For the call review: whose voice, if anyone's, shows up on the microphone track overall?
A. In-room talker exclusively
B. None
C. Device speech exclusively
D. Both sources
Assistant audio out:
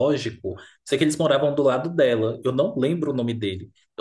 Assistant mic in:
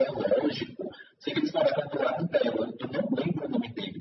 C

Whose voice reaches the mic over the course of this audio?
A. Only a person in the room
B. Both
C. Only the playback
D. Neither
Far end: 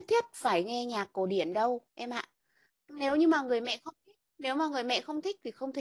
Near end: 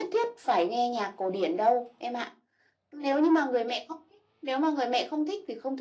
C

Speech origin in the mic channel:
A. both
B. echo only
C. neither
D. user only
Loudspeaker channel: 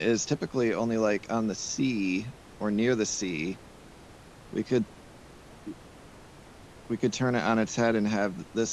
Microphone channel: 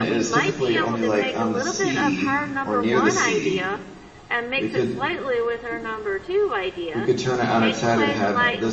A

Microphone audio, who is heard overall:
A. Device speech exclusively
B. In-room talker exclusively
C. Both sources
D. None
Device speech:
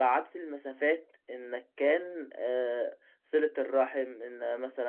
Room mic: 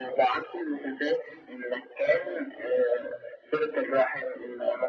A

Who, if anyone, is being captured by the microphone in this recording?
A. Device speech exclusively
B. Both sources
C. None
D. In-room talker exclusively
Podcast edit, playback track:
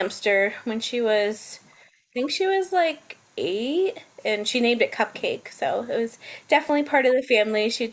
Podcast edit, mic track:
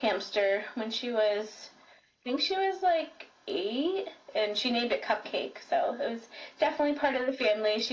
A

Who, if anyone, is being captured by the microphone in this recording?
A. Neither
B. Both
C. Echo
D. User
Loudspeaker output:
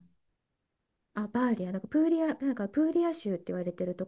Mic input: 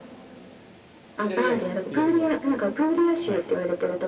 B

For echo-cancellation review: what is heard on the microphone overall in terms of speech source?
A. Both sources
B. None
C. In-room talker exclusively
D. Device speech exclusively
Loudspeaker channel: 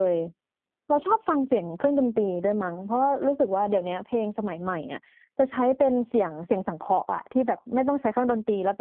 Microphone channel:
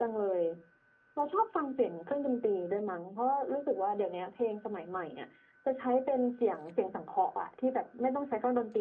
D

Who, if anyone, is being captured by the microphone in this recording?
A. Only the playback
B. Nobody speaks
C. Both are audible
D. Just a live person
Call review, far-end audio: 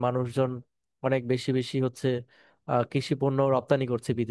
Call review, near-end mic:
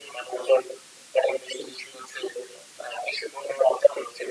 A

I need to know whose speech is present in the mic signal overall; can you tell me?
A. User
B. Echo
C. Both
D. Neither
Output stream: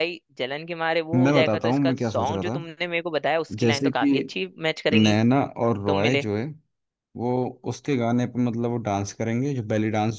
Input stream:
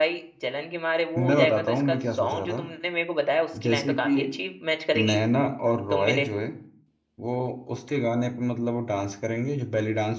B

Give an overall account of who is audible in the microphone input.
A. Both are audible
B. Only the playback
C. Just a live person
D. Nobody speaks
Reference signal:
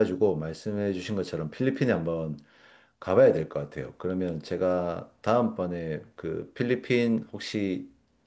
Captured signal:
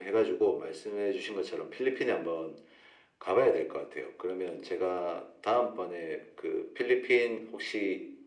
B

